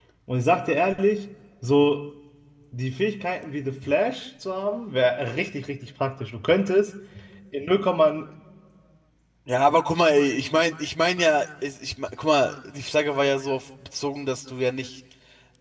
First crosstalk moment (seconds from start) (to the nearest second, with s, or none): none